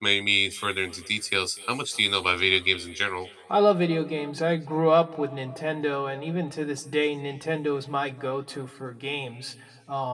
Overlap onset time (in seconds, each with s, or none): none